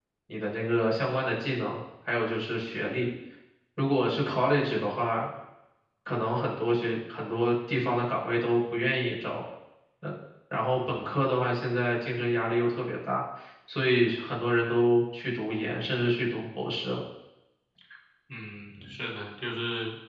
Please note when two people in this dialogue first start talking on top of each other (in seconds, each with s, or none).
none